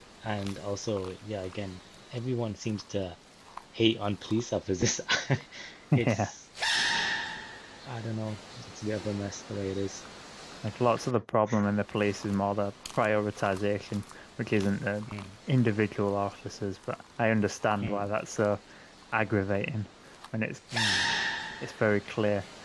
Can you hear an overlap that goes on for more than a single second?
No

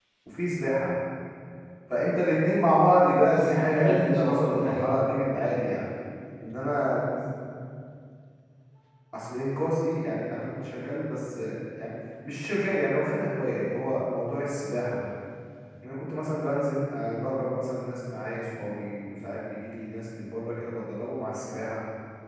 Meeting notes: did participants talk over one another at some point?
Yes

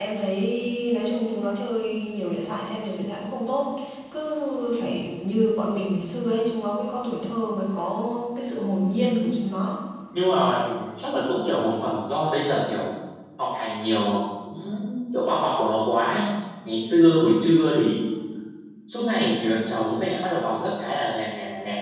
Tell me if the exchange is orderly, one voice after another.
Yes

